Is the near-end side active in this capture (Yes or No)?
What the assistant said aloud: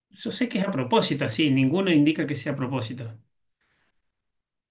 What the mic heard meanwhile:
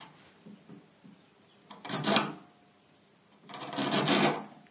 No